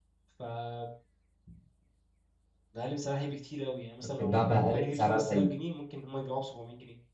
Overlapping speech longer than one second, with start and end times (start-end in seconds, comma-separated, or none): 4.2-5.5